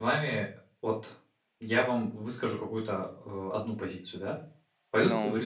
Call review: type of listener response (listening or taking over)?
listening